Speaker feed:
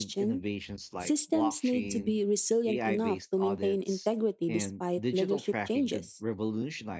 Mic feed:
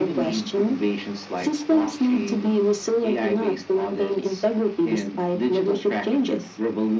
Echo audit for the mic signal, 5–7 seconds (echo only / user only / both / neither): echo only